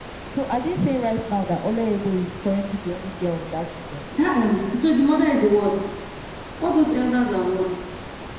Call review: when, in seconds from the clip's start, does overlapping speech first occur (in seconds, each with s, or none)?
none